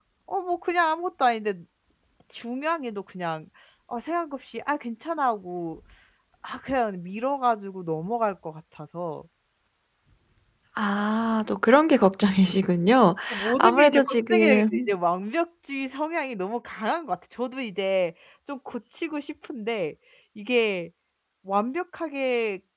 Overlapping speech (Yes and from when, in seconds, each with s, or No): Yes, from 13.6 s